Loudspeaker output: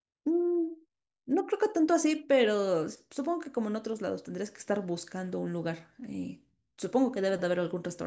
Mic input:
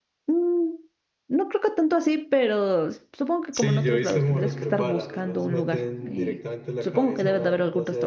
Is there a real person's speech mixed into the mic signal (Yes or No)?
Yes